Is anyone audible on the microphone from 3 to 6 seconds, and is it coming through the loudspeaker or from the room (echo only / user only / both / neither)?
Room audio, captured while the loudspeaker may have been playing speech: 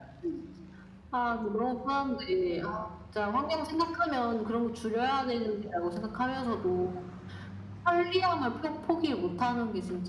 echo only